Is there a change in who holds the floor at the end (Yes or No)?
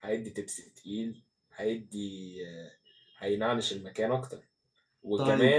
No